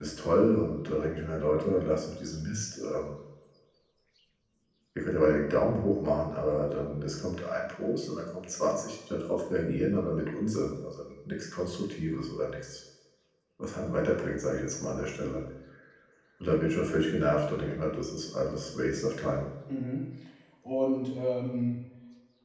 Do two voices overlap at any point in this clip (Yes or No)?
No